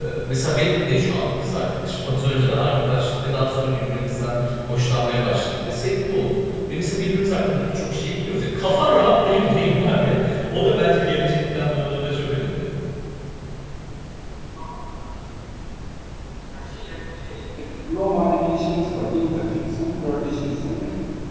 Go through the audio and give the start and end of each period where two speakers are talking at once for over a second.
none

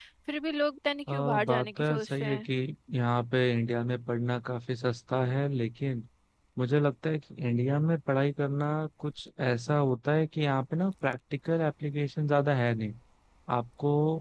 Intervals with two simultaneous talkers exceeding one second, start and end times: 1.1-2.5

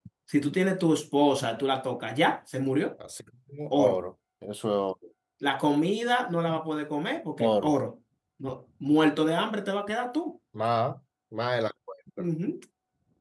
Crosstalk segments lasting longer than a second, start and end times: none

